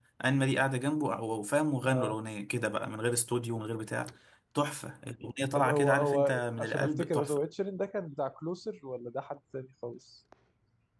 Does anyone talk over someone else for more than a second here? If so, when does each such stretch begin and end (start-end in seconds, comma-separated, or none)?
5.5-7.4